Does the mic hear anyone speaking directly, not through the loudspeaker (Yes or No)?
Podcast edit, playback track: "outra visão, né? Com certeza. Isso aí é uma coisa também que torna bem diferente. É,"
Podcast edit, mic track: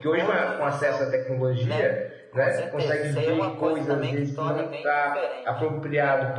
Yes